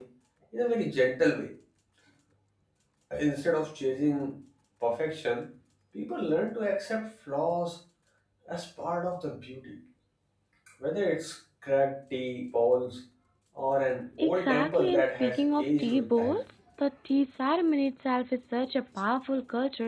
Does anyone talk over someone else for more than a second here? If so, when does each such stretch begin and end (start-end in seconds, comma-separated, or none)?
14.2-16.4